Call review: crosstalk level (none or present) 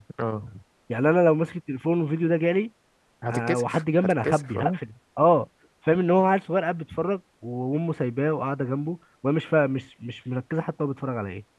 present